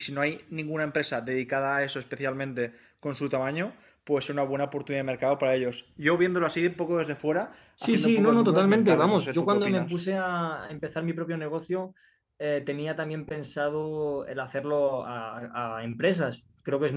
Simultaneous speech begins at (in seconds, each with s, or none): 7.8 s